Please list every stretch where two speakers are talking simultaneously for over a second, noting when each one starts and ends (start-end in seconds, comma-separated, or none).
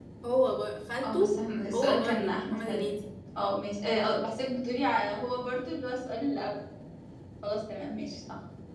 1.7-3.0